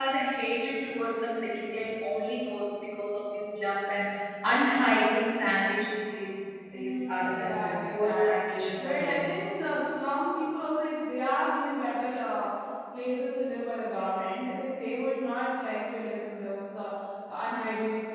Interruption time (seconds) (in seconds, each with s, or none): 6.7 s